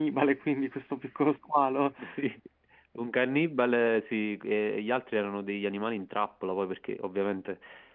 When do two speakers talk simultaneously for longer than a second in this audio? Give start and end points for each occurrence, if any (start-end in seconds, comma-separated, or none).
none